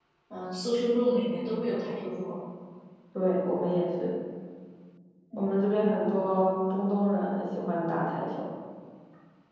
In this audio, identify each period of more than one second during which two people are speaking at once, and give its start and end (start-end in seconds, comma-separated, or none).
none